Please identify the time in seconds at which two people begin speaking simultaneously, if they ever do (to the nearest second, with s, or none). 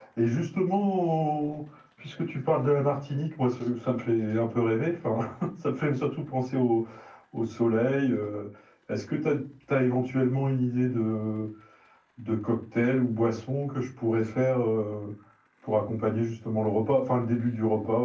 none